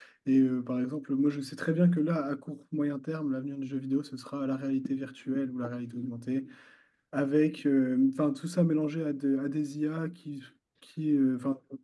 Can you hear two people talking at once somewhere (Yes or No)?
No